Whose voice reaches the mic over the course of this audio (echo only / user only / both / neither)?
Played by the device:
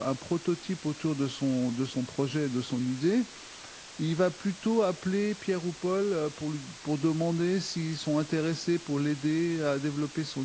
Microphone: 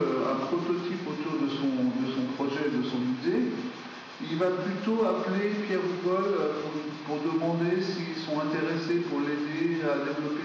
echo only